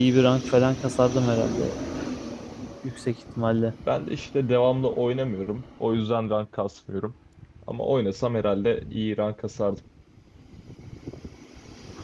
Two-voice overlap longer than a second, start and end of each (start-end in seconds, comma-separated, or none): none